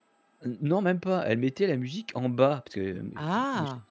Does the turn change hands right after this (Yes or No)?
No